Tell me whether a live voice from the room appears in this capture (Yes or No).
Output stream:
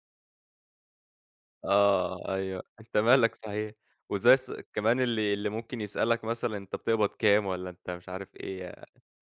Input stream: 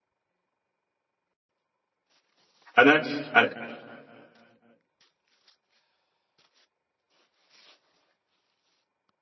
Yes